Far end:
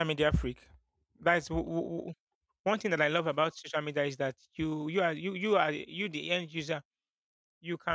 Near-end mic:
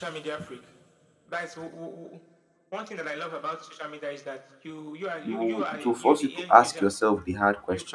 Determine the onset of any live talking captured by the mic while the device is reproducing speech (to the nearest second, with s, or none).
5 s